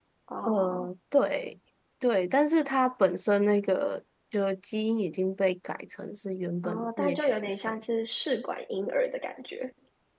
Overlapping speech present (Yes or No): Yes